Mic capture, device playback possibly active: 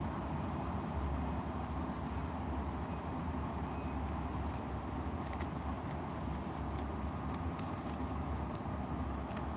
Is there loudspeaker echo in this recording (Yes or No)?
No